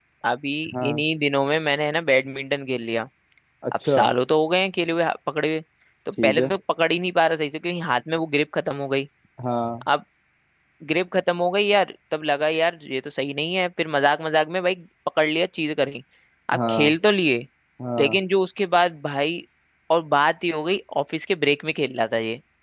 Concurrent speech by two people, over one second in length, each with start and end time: none

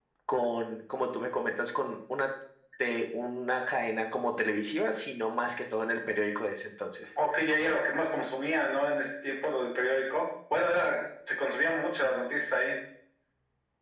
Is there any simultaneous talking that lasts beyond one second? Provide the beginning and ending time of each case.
none

